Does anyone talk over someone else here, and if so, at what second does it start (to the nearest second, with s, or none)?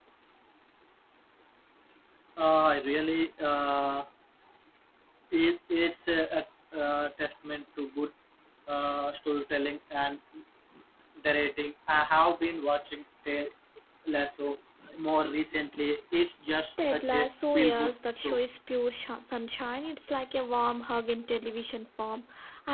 17 s